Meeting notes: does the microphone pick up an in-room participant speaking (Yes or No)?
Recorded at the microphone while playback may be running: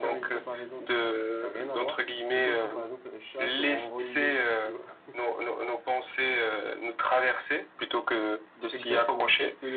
Yes